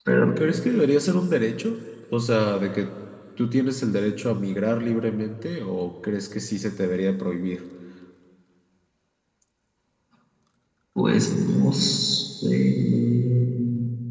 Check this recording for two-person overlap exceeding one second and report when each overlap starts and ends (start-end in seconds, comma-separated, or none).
none